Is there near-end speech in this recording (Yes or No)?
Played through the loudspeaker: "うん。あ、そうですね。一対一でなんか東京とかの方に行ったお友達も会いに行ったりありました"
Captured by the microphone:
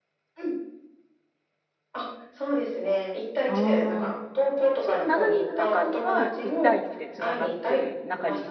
Yes